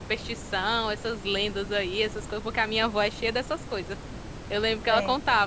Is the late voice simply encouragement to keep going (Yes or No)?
Yes